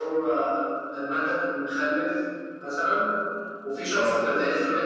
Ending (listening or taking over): listening